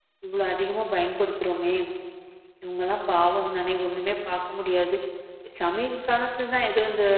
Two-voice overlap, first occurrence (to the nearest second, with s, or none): none